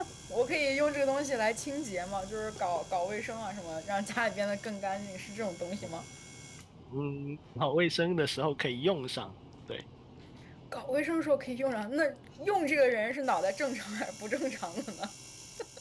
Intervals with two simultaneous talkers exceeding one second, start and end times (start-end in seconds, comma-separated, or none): none